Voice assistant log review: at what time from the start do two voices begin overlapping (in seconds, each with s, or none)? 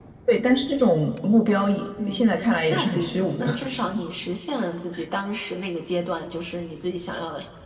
2.0 s